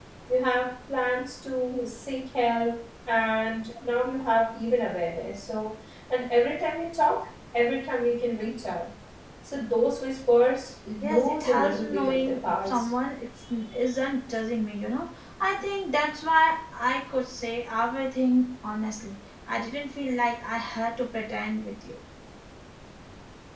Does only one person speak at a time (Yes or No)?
No